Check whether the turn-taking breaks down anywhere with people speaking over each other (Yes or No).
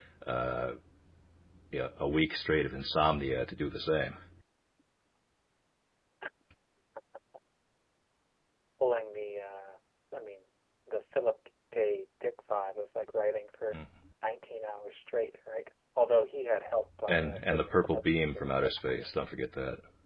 Yes